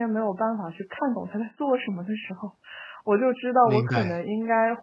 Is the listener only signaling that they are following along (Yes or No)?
Yes